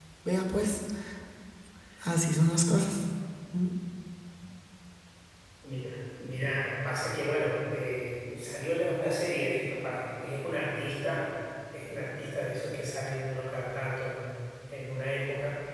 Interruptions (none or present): none